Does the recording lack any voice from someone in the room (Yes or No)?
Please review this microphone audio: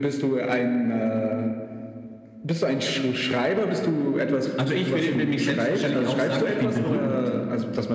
Yes